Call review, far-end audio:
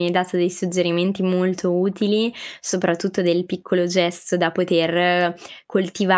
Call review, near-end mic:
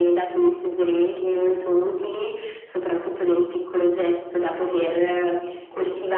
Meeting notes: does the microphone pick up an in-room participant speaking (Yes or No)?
No